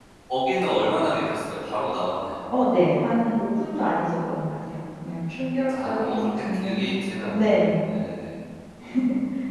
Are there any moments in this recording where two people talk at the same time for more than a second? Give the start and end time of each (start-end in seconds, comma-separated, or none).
5.8-7.7